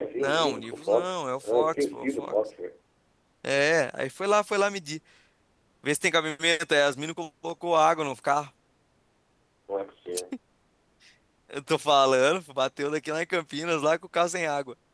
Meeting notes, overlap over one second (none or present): present